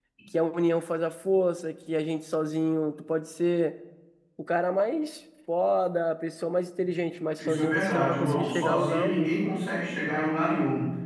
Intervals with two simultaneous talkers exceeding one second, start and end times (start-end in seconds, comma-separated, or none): 7.4-9.3